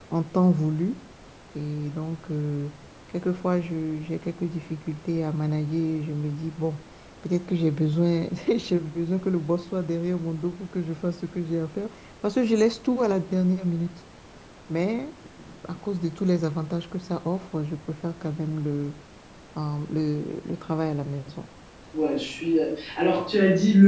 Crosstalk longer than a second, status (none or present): none